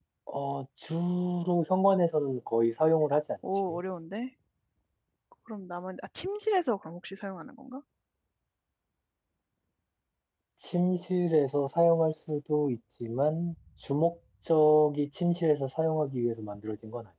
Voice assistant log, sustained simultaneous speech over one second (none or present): none